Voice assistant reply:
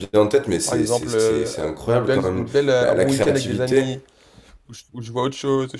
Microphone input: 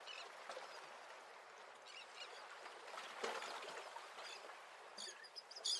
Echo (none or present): none